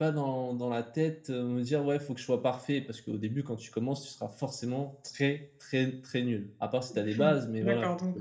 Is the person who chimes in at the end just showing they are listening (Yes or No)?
No